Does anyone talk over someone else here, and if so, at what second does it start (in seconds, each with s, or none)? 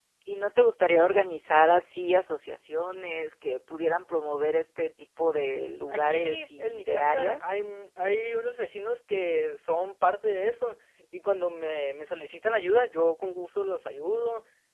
5.9 s